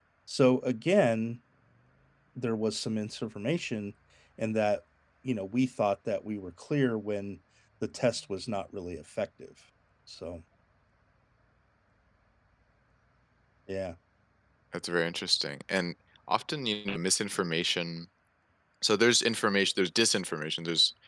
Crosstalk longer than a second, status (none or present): none